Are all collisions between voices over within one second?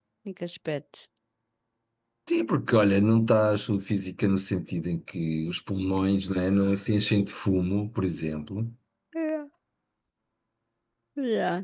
Yes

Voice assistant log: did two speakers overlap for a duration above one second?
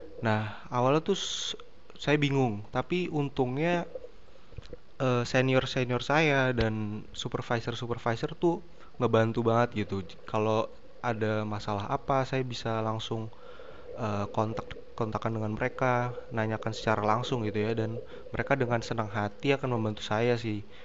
No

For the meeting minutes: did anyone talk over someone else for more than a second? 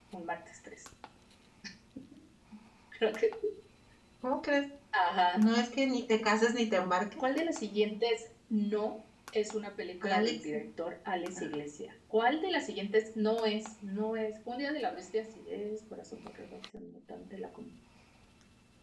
No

